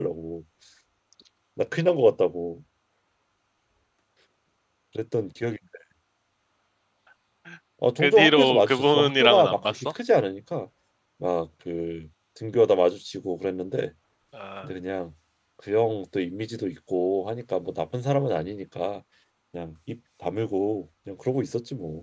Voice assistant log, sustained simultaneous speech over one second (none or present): present